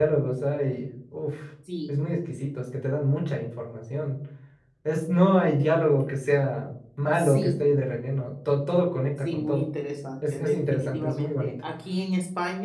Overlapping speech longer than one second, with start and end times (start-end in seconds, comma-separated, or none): 10.3-11.5